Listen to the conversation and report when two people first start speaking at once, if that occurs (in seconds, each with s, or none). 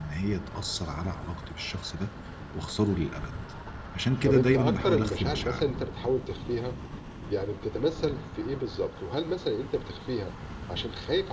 4.2 s